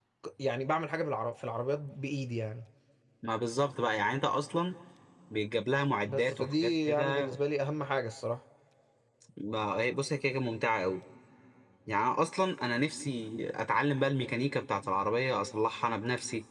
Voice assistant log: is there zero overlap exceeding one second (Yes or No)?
No